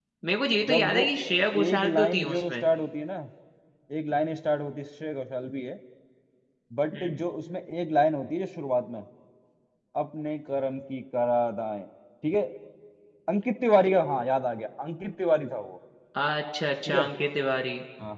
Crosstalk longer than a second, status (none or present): present